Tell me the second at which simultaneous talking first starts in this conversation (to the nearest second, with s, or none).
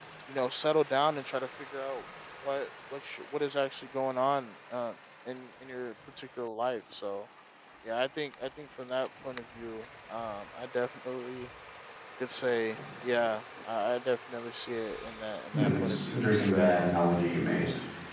16 s